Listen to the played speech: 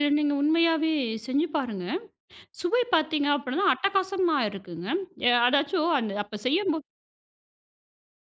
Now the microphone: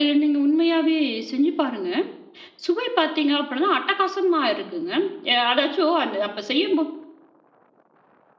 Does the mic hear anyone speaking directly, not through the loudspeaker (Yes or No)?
No